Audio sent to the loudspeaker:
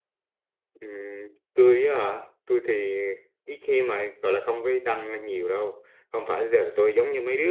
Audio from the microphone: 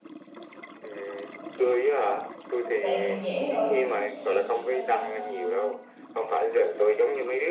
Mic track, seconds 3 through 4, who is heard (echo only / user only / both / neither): both